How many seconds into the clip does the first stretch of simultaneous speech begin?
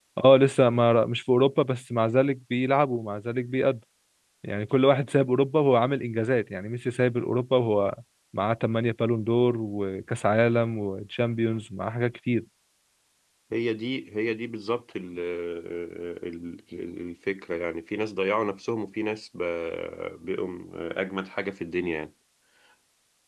none

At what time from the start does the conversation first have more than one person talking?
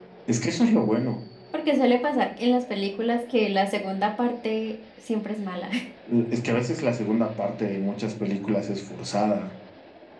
none

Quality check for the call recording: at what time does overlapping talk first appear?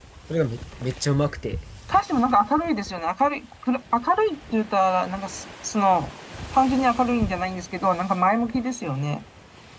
none

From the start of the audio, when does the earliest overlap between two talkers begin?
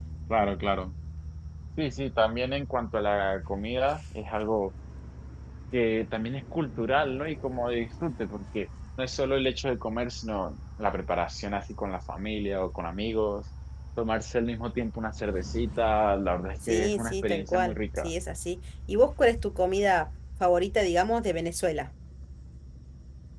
16.6 s

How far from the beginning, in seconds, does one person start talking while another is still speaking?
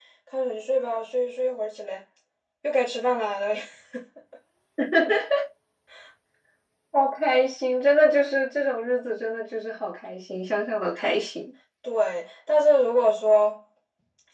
none

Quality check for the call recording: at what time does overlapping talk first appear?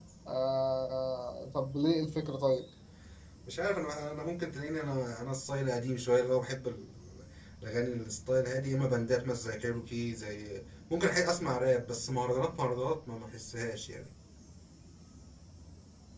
none

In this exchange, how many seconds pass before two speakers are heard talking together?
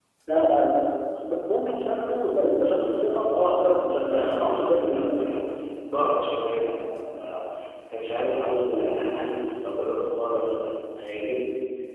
4.1 s

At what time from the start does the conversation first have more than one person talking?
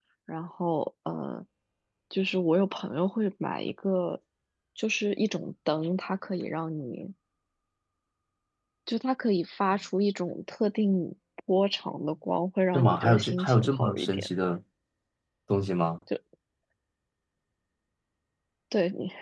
12.7 s

